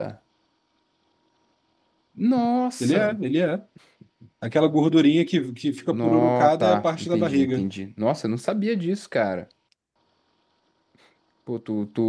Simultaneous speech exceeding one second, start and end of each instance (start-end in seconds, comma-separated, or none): 5.9-7.6